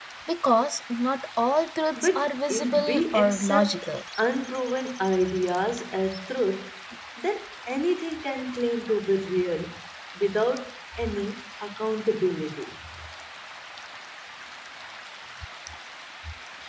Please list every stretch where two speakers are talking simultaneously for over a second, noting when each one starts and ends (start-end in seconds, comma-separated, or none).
2.0-3.9